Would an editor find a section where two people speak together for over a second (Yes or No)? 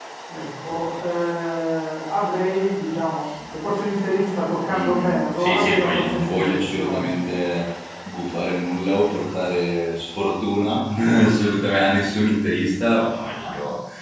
Yes